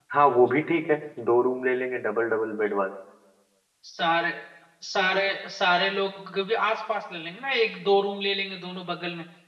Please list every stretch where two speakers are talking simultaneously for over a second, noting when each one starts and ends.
none

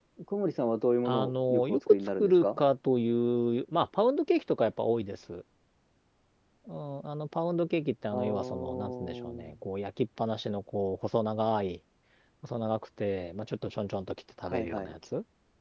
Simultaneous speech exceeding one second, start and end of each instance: 1.0-2.6, 8.1-9.6

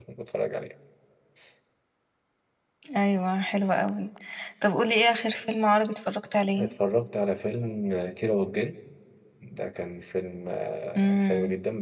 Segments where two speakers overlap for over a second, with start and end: none

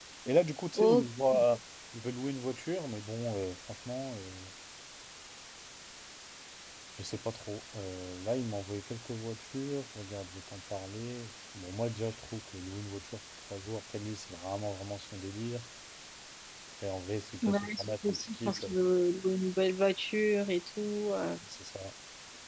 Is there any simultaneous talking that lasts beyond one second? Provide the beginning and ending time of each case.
17.4-18.7

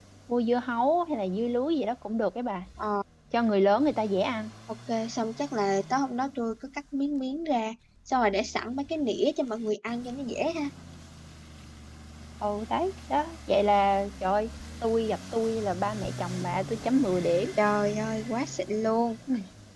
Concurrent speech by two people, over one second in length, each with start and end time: none

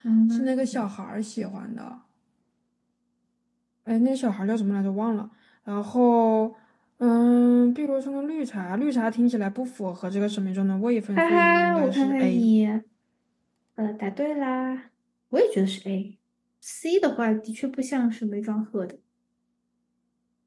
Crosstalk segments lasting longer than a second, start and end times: 11.2-12.5

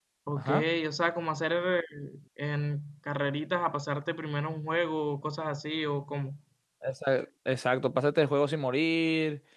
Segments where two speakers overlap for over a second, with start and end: none

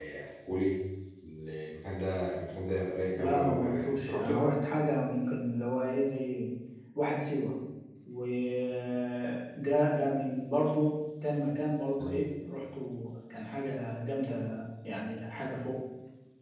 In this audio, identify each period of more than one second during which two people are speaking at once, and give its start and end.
3.2-4.4

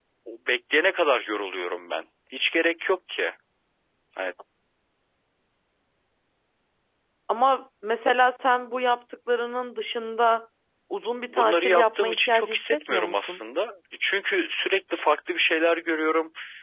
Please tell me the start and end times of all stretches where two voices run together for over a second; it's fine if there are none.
11.2-13.4

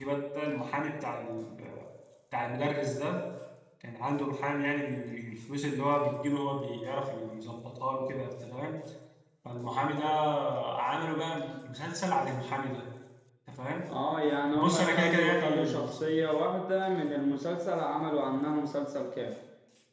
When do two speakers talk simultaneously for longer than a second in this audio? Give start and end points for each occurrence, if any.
14.5-16.0

